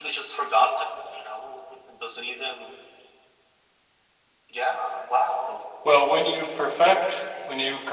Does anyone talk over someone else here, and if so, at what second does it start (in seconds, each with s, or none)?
none